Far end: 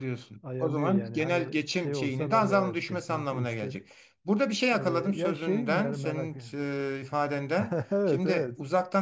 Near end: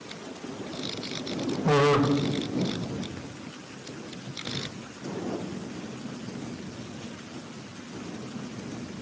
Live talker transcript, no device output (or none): hı hı.